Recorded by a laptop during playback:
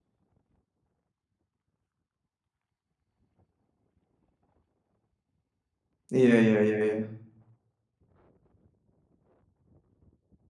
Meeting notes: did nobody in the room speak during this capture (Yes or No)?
No